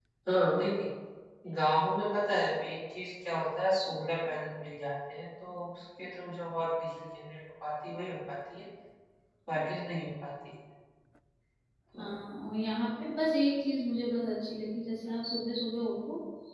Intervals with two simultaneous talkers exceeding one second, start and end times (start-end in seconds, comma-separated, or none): none